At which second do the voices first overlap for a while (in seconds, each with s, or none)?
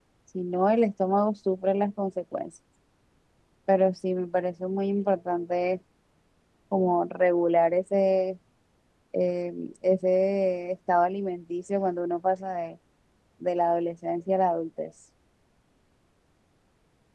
none